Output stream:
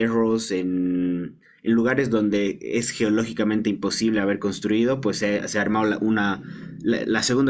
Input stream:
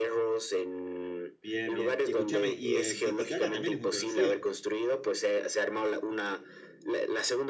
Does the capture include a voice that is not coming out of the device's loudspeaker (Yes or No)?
Yes